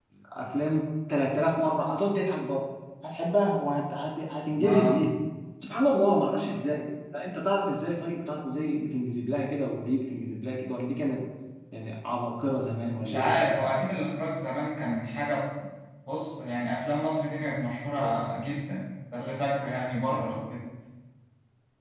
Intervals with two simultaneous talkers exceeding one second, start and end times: none

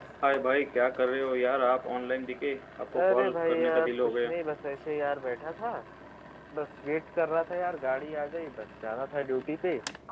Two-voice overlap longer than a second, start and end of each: 3.0-4.3

